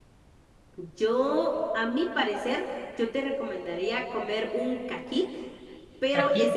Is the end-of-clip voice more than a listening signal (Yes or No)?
No